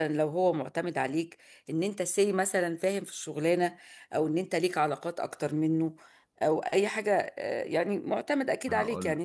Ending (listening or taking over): listening